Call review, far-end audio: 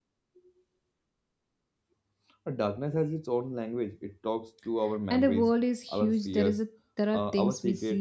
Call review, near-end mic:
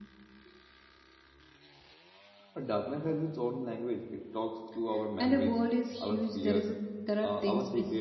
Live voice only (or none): none